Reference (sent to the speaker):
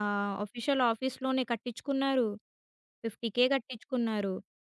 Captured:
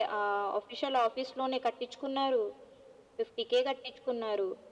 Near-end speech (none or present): none